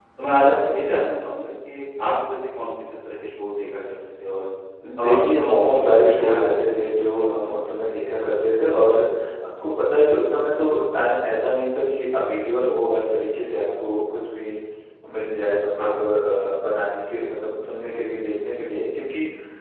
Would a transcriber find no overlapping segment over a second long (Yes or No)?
No